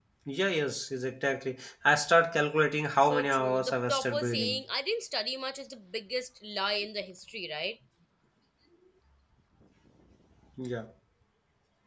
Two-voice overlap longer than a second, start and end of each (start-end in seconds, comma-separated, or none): 3.0-4.7